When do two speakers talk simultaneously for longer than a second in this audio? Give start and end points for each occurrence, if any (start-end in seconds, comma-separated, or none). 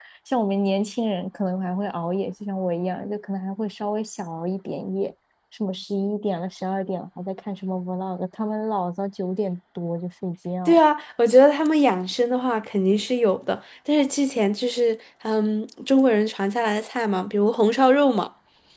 none